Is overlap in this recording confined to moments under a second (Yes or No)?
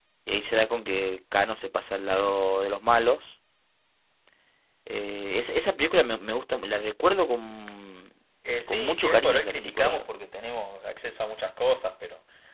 No